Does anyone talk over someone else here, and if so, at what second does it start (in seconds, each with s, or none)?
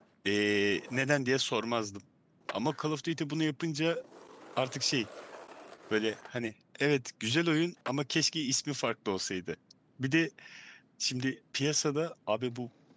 none